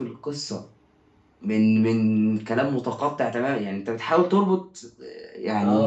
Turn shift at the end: Yes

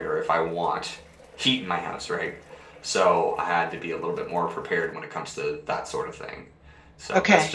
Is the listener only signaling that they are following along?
Yes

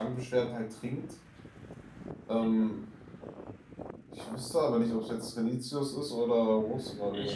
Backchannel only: No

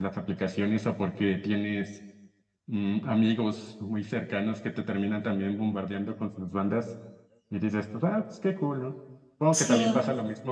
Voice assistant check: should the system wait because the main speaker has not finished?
Yes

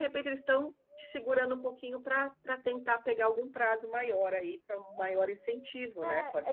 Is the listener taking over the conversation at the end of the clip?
Yes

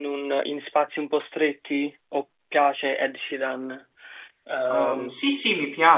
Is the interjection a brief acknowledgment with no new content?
No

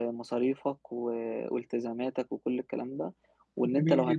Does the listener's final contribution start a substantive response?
No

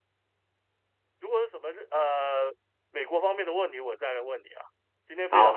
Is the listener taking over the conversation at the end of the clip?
Yes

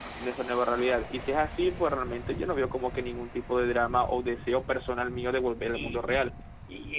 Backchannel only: No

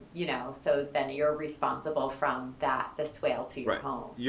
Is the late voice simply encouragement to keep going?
No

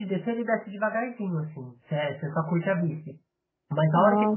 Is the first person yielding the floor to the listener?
No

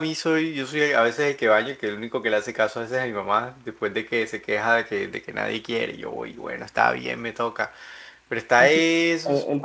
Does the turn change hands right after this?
Yes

